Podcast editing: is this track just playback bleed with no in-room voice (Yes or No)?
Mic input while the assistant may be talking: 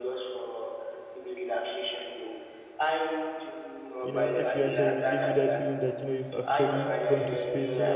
No